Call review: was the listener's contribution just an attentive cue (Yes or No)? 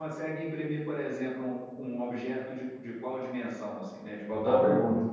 No